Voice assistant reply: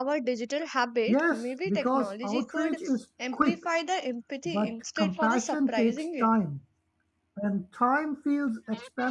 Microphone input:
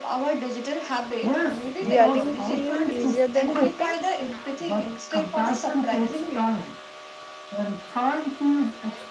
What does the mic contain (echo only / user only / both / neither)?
both